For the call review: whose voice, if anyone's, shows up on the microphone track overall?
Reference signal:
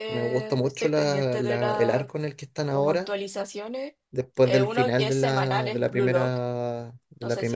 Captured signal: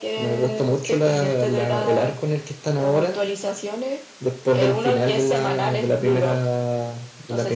echo only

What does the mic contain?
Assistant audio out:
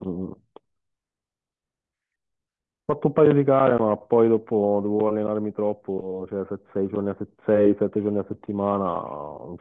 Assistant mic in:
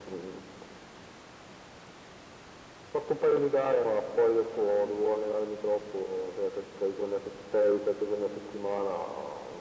echo only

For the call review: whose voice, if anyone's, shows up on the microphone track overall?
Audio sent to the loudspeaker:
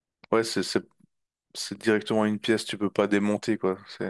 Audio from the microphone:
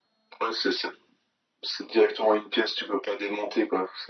echo only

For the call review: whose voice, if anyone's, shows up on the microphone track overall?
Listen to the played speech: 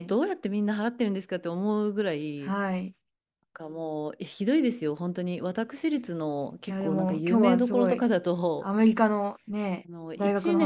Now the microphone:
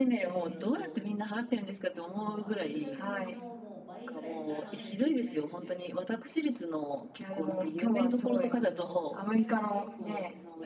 both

